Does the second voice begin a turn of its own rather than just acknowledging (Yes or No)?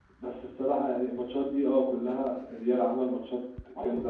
Yes